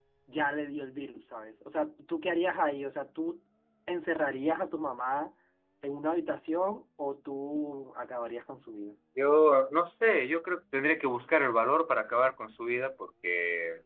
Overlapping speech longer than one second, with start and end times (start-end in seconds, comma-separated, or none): none